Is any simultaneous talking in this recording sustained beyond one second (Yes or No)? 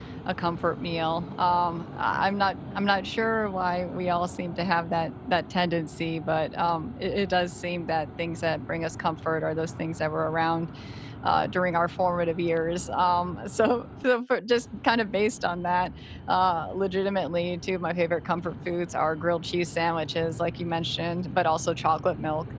No